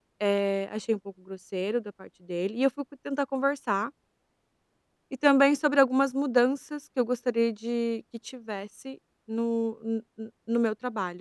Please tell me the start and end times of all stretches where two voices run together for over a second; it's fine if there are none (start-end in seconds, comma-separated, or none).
none